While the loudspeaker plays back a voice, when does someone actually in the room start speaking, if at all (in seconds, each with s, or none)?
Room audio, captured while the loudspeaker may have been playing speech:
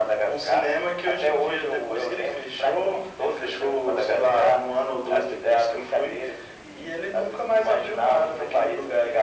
none